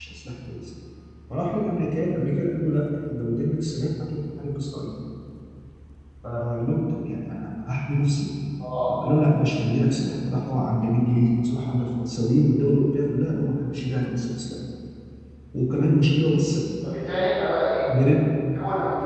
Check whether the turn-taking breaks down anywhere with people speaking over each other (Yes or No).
No